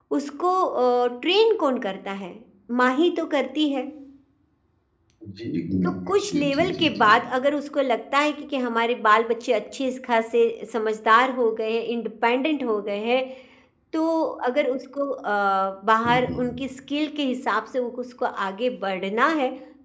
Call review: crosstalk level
present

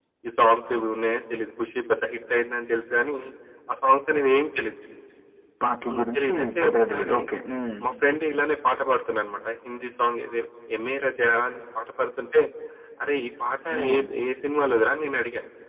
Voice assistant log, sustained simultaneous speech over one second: present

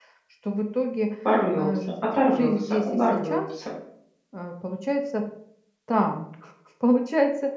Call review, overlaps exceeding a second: present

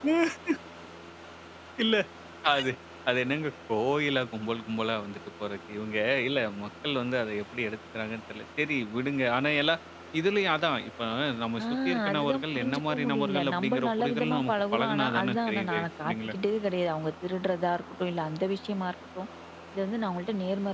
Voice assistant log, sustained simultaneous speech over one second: present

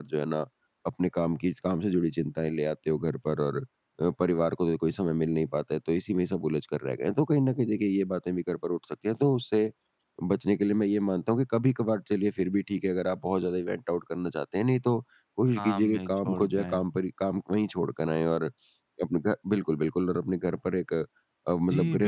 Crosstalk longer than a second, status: present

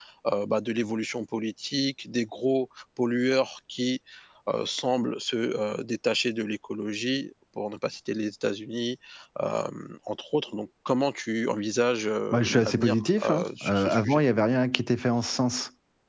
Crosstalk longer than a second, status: present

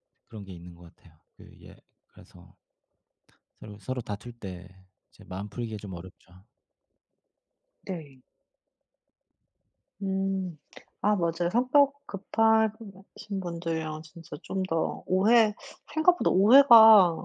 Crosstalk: none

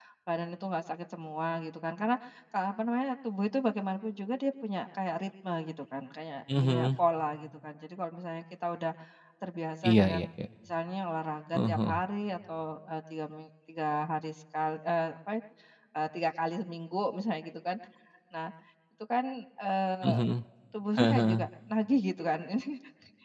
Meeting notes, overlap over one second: none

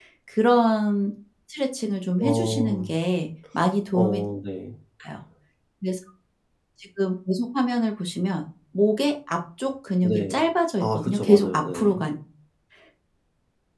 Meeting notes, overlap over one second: present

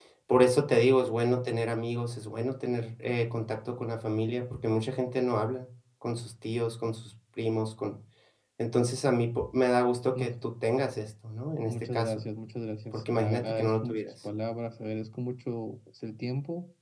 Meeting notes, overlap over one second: present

